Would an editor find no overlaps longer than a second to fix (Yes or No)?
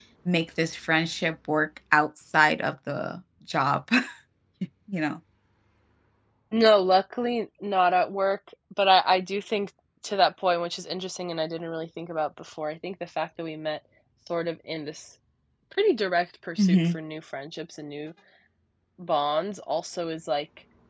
Yes